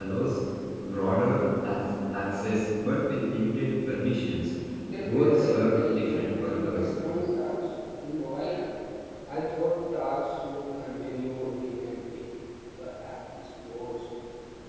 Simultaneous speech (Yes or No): Yes